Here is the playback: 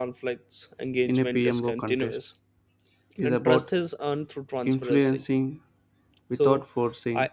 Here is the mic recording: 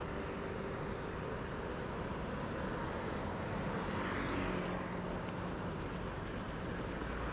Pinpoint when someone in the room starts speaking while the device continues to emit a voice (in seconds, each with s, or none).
none